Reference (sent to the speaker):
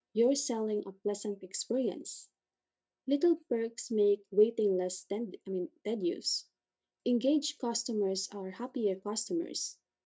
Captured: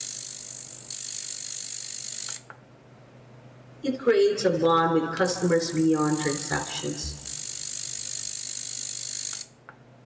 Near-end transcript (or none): It creates a bond with customers beyond transactions.